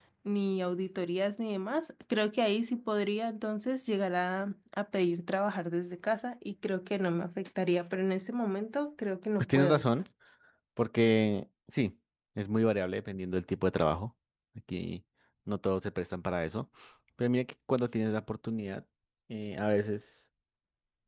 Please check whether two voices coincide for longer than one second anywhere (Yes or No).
No